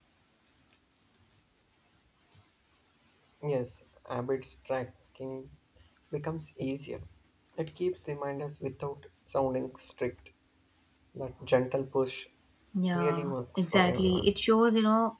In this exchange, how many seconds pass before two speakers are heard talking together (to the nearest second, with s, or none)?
13 s